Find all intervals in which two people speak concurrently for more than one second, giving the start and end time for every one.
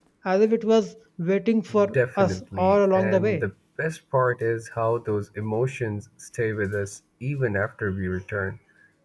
1.9-3.4

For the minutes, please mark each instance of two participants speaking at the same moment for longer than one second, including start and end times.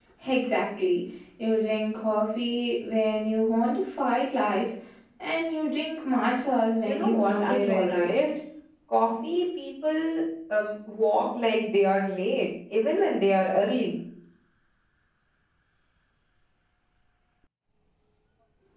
6.8-8.1

